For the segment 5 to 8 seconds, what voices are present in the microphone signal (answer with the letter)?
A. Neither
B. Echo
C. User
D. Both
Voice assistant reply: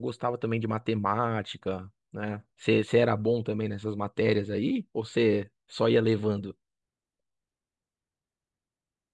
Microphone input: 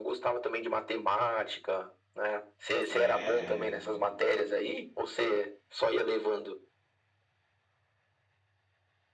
B